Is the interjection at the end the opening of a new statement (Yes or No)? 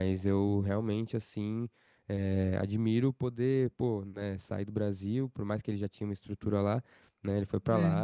No